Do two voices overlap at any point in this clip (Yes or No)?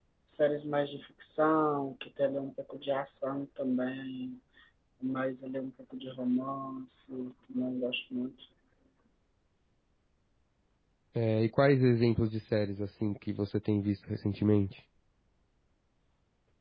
No